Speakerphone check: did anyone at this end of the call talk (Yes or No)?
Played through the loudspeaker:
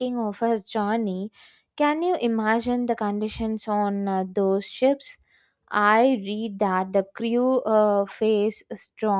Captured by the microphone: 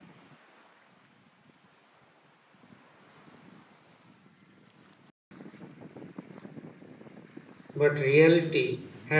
Yes